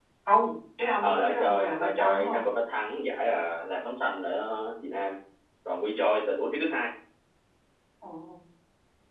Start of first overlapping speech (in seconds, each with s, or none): 1.0 s